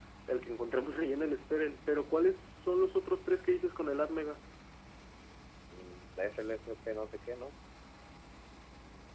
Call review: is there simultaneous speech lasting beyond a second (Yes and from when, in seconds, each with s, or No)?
No